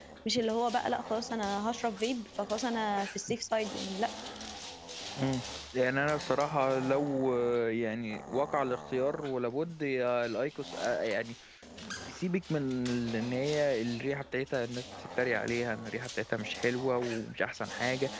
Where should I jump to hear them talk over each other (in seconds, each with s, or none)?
none